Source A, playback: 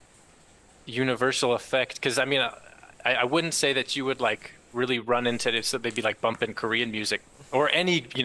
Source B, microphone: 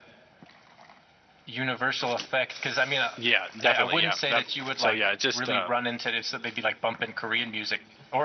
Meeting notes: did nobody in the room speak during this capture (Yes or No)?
No